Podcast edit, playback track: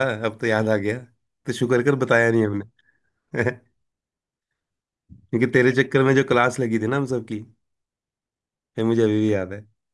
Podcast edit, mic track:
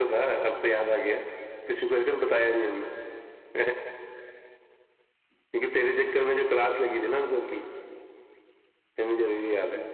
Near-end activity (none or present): none